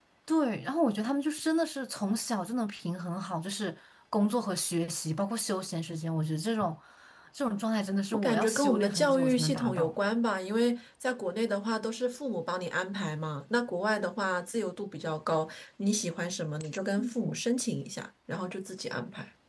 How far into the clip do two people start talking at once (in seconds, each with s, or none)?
8.1 s